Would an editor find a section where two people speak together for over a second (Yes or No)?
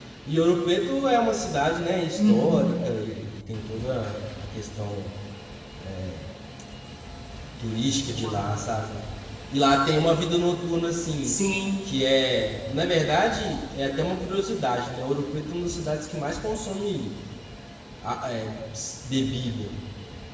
No